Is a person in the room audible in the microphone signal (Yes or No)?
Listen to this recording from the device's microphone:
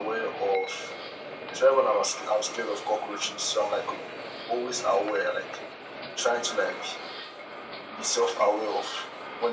No